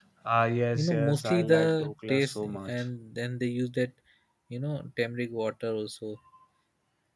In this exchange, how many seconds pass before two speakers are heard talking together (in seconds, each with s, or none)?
0.8 s